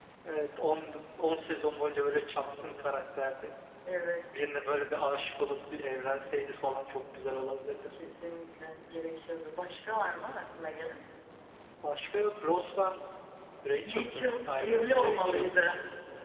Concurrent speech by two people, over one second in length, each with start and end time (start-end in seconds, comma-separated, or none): 13.8-15.5